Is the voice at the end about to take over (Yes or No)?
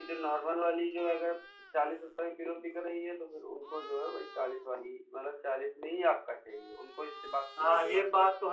Yes